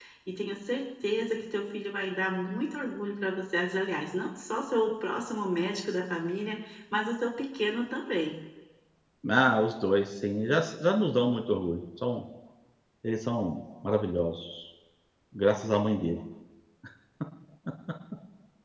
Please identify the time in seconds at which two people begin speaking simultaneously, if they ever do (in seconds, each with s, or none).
none